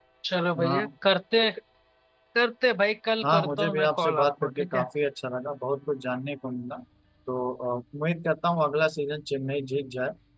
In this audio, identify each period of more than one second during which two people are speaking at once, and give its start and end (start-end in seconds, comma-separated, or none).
3.2-4.8